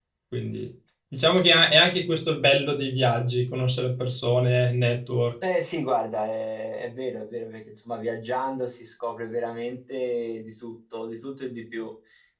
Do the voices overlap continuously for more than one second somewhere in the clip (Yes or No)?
No